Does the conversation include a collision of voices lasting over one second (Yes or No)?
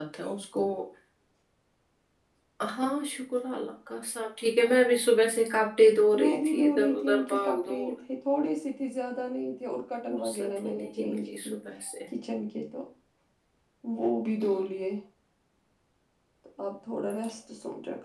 Yes